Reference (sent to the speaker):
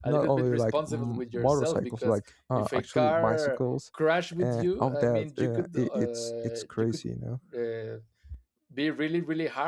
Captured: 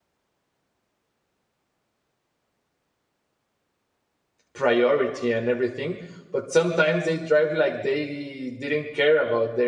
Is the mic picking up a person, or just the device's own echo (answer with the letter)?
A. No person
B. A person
B